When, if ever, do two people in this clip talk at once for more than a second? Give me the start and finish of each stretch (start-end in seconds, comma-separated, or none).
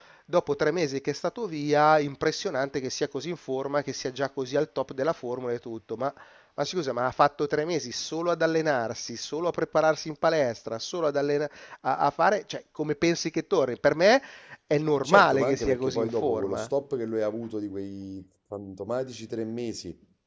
14.9-16.7